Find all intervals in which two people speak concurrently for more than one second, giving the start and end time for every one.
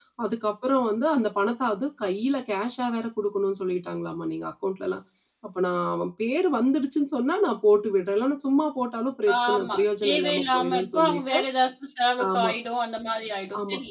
9.5-11.4

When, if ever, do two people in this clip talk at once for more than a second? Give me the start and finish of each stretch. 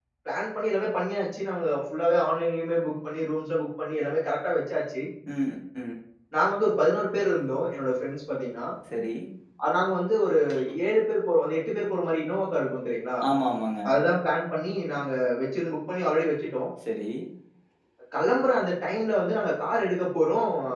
none

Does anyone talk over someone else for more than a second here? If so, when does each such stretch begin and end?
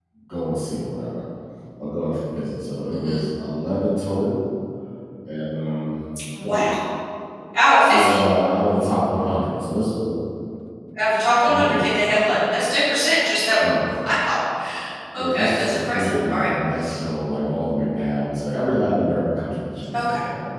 15.1-16.5

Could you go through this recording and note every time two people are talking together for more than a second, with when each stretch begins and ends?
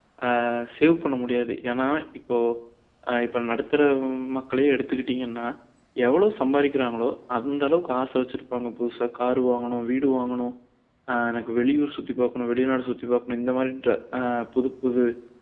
none

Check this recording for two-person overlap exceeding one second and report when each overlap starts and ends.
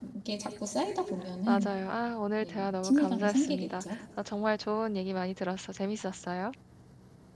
2.4-4.0

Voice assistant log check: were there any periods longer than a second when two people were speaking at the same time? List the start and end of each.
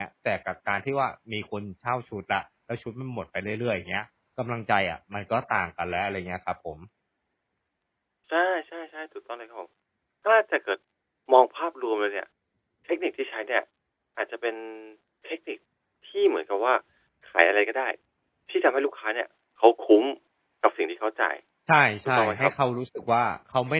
none

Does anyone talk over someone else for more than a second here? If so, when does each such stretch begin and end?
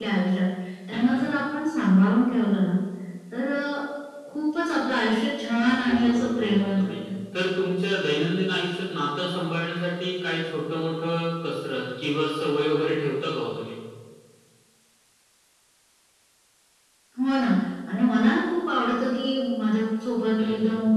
5.7-6.9

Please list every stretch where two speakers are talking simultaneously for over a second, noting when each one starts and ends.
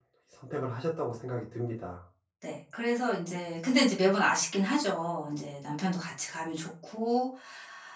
none

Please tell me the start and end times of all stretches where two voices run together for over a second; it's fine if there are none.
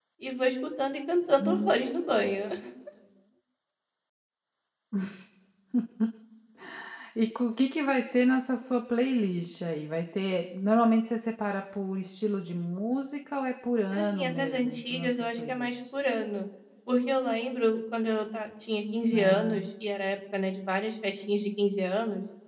13.9-15.8

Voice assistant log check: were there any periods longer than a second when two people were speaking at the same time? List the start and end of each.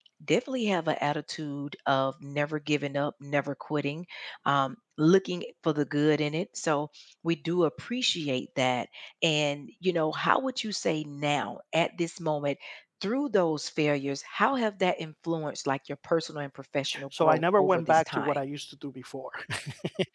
17.2-18.4

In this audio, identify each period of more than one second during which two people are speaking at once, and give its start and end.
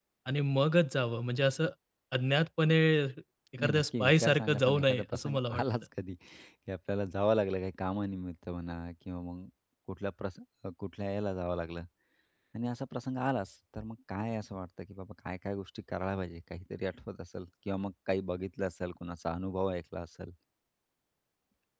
3.6-5.6

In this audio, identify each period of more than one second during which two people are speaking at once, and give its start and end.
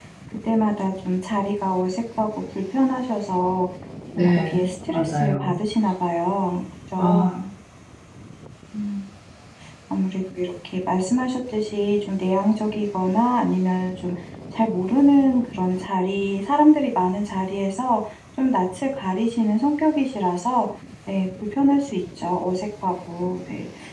4.2-5.6

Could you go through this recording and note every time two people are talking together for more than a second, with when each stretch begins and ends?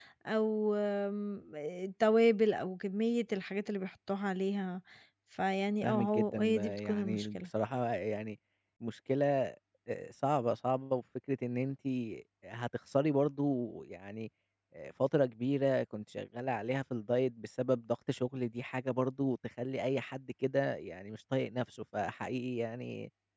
5.8-7.5

